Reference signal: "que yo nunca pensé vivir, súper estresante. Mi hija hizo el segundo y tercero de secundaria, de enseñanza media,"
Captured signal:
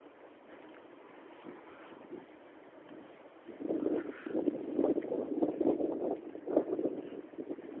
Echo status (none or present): none